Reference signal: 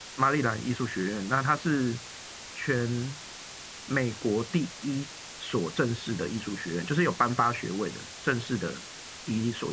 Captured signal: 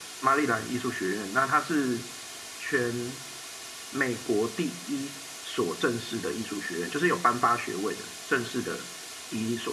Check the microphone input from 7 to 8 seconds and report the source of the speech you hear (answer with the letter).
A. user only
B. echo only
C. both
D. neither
B